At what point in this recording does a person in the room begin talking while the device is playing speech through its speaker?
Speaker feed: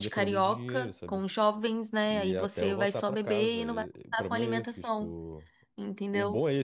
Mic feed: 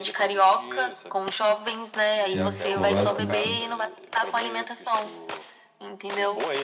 2 s

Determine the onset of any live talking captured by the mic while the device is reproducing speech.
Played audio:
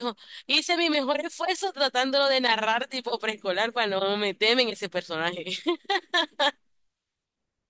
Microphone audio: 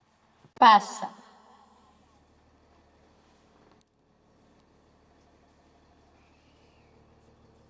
1 s

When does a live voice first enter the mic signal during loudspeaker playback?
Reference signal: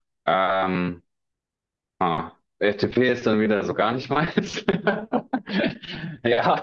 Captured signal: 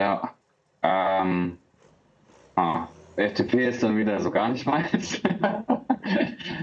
none

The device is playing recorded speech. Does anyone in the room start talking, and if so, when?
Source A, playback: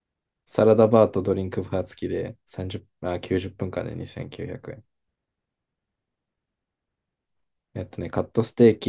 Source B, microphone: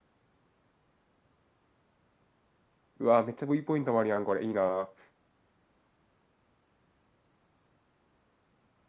3 s

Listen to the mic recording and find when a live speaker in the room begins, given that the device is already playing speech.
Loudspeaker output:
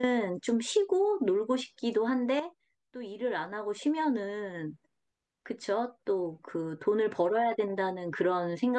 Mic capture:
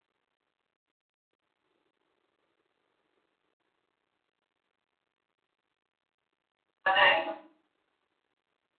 7 s

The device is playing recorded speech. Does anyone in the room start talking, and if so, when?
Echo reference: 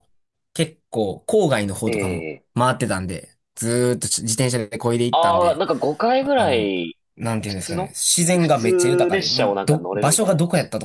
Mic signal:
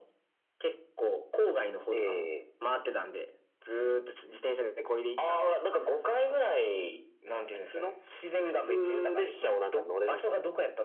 none

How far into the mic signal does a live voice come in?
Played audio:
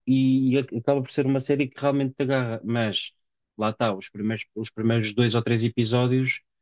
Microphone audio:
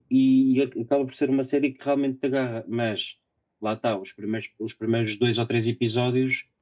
none

